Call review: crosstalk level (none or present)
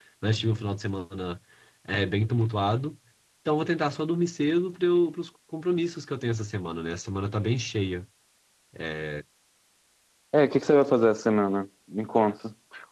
none